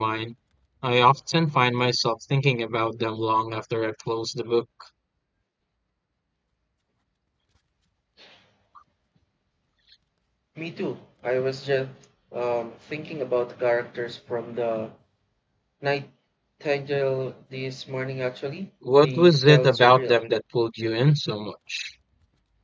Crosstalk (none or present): present